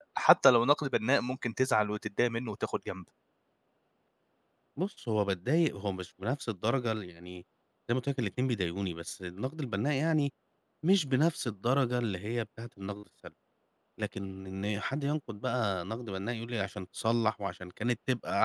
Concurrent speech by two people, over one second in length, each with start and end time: none

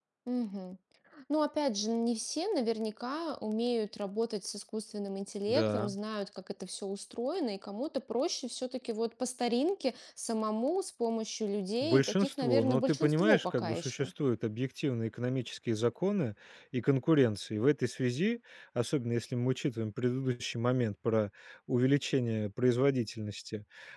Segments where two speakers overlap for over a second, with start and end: 11.8-14.1

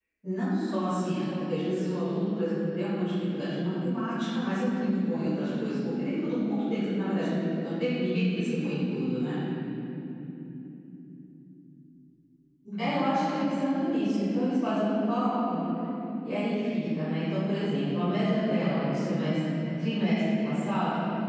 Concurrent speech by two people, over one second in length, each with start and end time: none

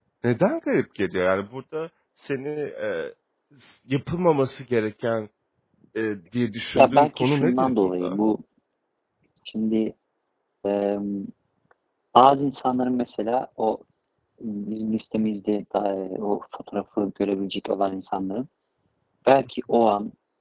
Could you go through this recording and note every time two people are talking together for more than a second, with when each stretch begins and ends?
6.8-8.2

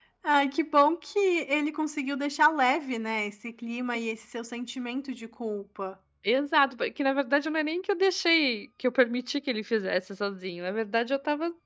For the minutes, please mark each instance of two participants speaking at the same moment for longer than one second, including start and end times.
none

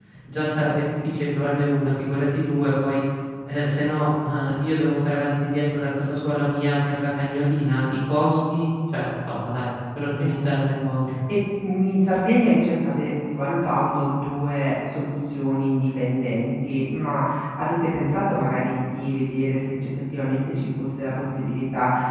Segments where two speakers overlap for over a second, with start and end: none

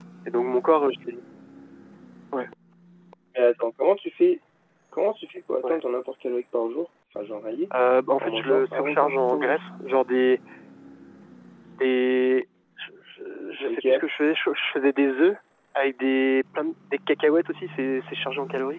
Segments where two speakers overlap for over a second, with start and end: 8.2-9.6

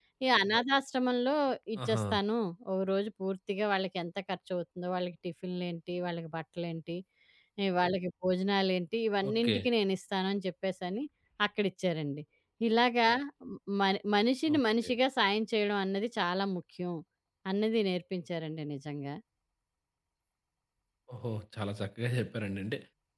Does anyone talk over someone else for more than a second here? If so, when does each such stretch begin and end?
none

